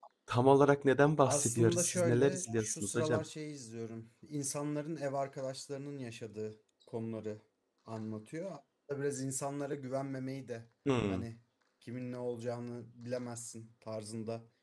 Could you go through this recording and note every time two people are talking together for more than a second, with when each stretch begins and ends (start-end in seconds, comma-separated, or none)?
1.2-3.2